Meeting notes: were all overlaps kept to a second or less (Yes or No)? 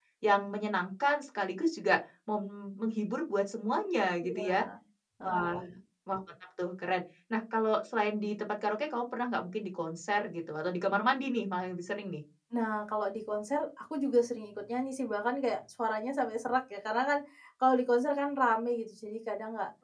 Yes